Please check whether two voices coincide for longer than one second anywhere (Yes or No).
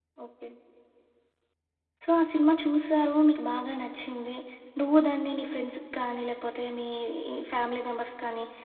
No